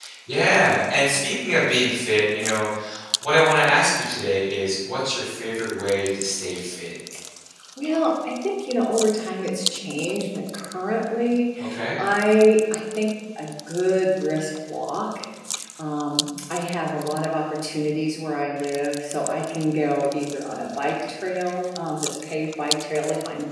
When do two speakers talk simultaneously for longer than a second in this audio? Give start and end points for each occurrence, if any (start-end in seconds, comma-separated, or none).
none